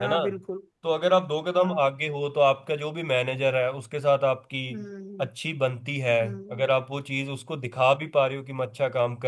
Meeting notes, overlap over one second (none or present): none